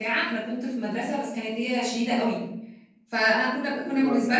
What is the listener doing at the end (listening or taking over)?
listening